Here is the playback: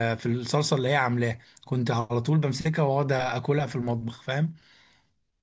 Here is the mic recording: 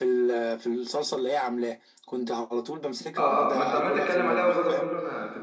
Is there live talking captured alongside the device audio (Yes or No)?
Yes